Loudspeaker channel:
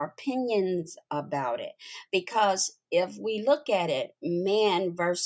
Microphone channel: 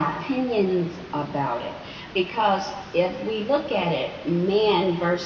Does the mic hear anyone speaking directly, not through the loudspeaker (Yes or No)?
No